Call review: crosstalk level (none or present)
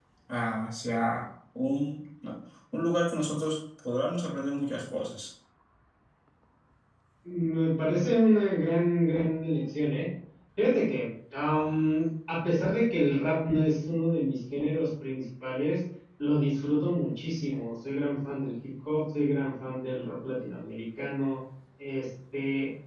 none